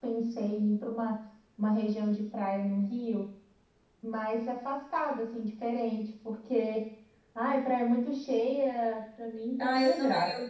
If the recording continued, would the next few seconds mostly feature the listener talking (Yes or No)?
Yes